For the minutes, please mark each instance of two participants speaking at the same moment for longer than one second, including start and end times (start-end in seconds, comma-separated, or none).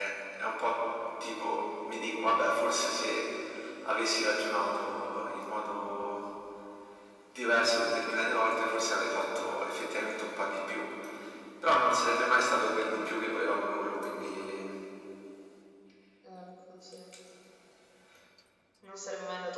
none